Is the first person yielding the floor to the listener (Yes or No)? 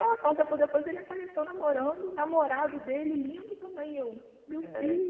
Yes